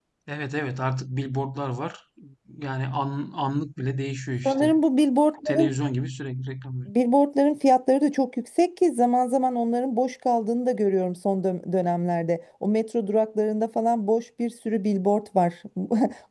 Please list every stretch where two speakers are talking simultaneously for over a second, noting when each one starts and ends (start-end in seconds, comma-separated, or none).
none